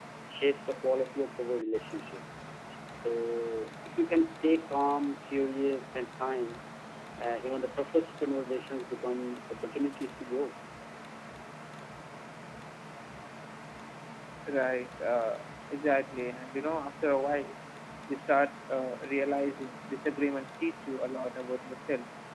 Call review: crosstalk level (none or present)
none